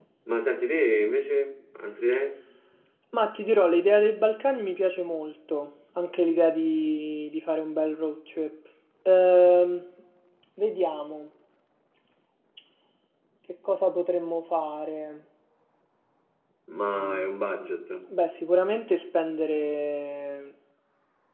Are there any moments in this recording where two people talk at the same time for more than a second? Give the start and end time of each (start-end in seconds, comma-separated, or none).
none